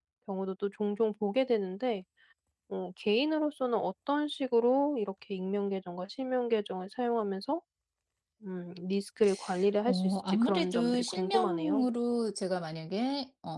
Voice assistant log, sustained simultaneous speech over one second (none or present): present